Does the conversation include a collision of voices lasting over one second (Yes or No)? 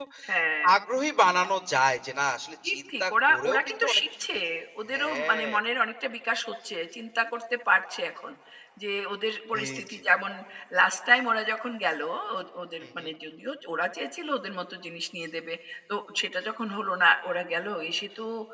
Yes